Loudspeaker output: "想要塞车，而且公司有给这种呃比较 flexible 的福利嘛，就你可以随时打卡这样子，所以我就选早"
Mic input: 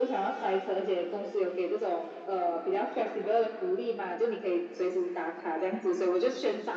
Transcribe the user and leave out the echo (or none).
none